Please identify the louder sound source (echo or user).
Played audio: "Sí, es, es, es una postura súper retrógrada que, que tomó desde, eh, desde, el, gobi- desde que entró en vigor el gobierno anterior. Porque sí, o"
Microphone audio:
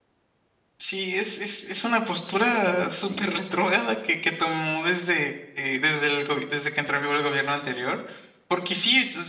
echo